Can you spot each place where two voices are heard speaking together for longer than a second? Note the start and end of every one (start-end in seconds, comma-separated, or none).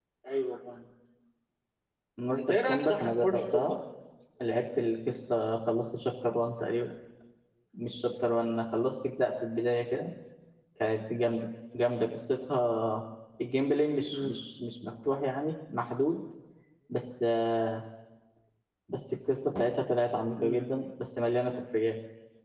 2.3-3.8